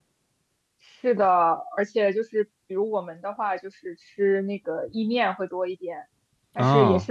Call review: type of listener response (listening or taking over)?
listening